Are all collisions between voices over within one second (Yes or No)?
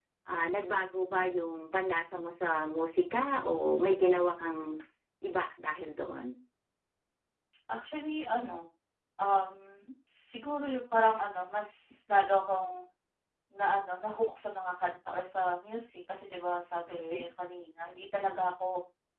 Yes